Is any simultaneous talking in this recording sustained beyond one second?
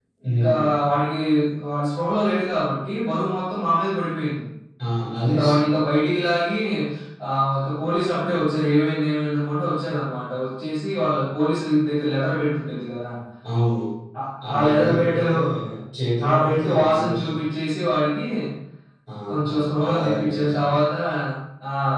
Yes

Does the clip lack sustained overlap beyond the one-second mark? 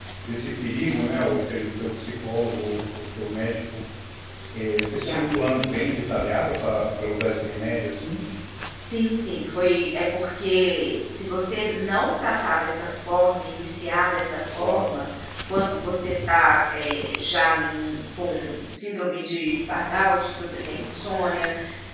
Yes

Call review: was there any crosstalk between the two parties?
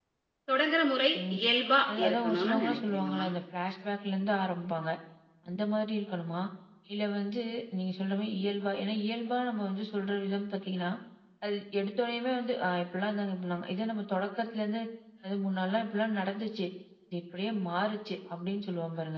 Yes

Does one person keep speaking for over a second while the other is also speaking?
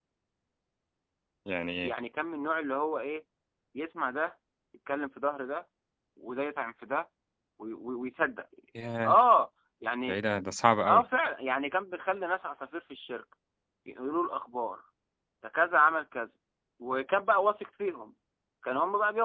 No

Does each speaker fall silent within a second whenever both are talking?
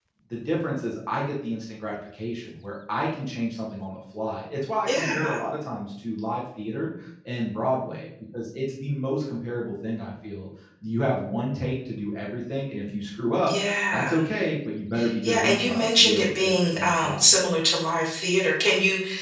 No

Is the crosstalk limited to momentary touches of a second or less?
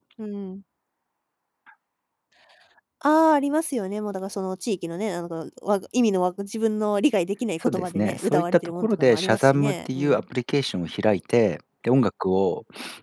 No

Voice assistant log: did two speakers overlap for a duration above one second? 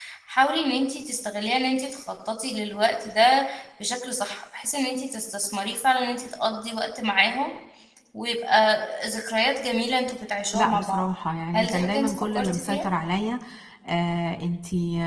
Yes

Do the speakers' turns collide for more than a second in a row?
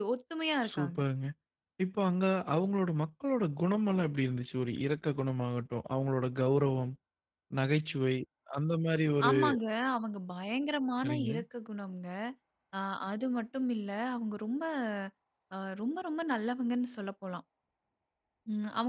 No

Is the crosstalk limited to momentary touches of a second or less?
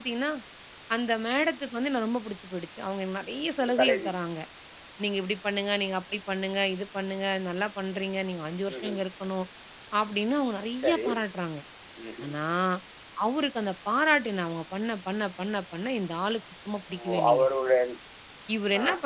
Yes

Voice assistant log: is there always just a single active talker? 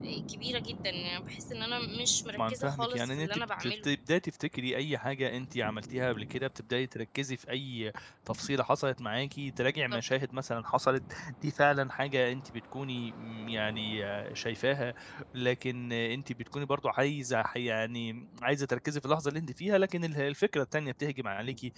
No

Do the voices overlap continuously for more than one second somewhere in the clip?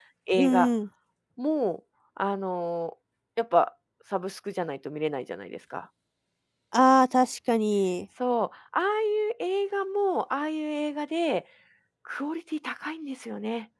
No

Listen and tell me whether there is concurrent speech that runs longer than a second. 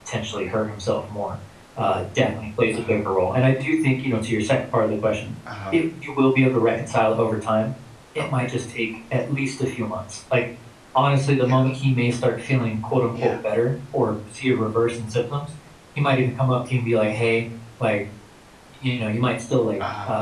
No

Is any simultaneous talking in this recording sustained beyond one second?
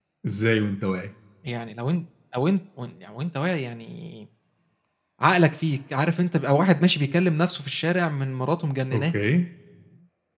No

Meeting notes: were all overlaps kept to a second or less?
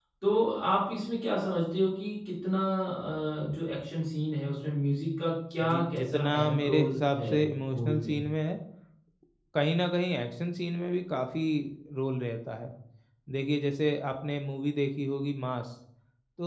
No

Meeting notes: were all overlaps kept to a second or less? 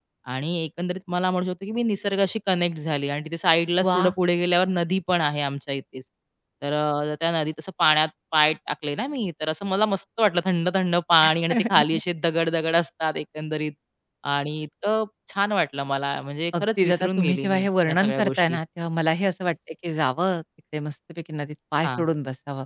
No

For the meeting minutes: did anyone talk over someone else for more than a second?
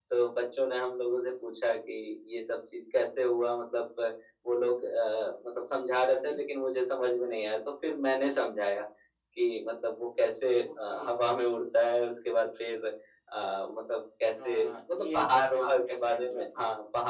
Yes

